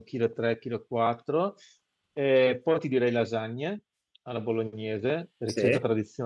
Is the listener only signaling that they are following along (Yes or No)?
Yes